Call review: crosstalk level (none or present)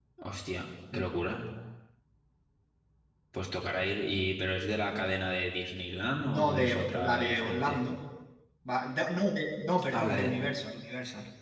present